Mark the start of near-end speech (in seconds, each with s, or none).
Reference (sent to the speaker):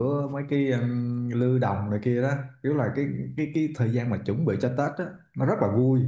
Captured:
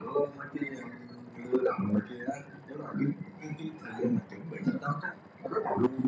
none